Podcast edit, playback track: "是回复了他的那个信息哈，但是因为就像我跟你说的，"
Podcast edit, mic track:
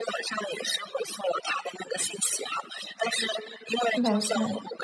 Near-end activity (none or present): present